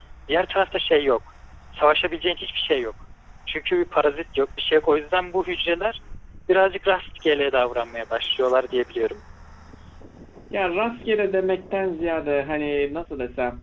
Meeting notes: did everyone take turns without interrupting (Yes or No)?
Yes